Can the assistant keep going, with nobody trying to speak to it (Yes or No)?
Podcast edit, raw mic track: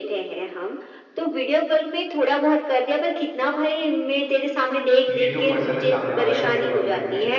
No